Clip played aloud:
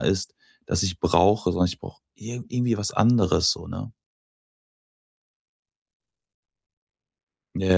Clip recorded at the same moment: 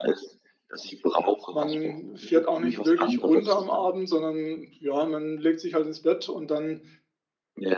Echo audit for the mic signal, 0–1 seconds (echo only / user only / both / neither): echo only